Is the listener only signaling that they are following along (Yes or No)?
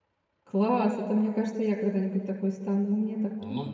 No